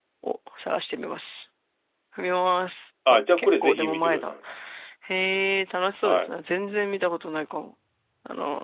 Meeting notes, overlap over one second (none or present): present